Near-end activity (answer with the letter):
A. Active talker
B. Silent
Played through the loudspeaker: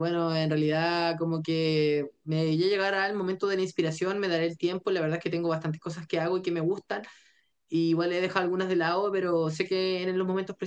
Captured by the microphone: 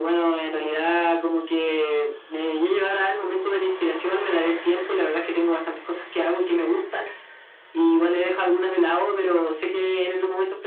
B